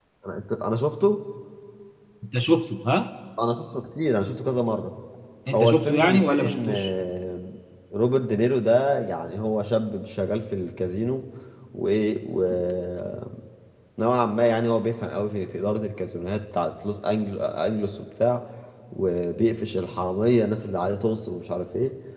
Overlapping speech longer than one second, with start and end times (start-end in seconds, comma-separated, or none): 5.5-6.9